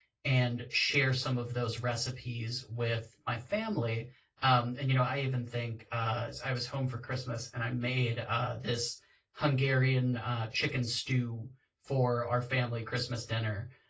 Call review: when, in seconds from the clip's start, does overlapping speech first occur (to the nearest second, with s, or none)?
none